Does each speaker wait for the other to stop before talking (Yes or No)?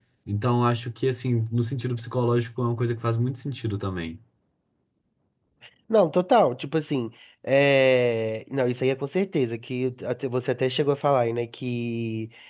Yes